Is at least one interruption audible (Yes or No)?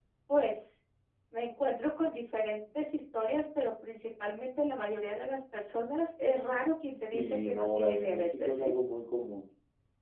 Yes